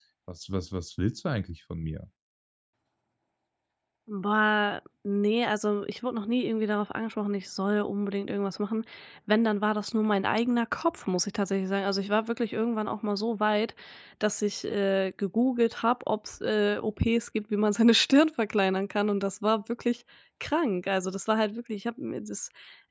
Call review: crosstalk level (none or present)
none